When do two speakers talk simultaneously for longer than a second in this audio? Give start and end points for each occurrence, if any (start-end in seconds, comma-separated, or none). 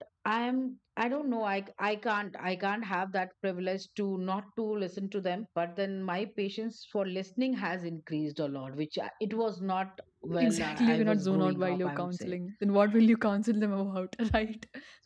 10.4-12.3